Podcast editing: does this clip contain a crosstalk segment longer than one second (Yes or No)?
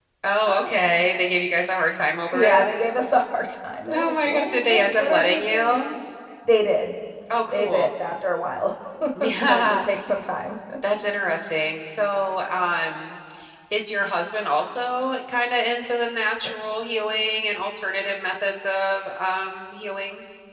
Yes